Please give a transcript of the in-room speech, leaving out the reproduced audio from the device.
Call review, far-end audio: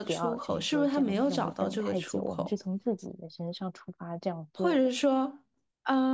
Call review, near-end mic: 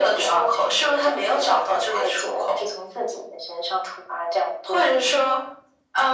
none

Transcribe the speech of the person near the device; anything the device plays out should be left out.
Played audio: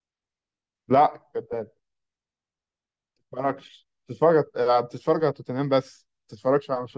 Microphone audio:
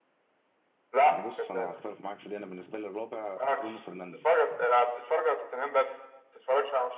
بص انا هختلف معاك في دي انا بالنسبه لي الرابع برونو فرنانديز

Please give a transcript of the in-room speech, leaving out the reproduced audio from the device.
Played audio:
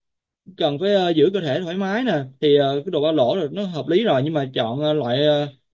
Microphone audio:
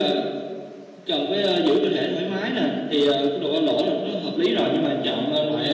none

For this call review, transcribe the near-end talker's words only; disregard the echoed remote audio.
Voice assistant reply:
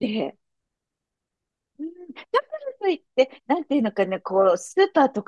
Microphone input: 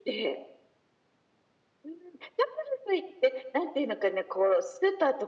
none

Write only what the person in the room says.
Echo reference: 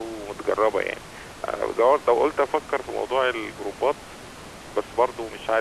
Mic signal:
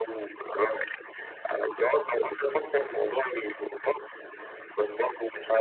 none

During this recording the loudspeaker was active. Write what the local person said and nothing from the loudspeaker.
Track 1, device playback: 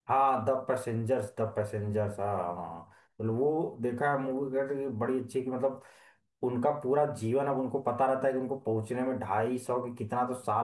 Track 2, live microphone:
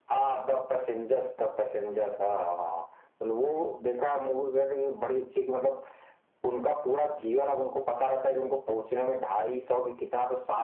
none

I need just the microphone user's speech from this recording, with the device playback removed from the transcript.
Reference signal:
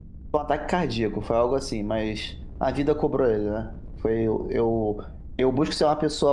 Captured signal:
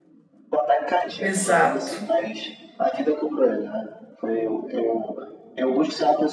Exato.

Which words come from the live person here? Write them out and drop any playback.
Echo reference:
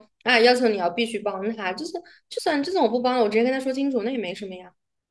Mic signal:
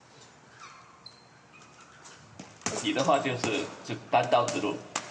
你的话就是只单刀直入，

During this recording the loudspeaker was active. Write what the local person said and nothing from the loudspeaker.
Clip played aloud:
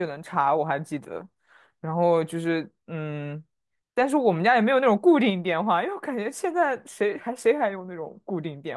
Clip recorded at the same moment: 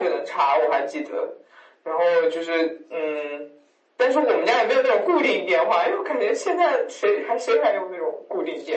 none

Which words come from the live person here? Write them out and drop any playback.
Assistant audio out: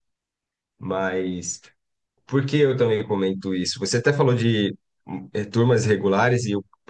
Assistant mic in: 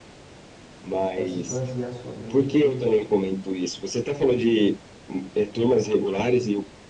é se basear somente

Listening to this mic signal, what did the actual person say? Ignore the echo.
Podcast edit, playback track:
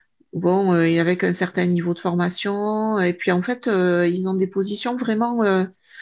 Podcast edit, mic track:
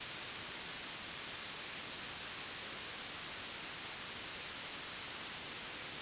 none

